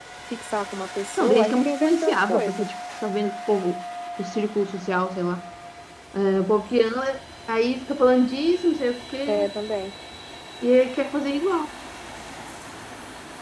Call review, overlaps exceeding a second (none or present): present